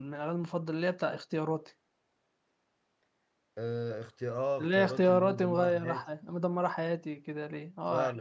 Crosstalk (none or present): present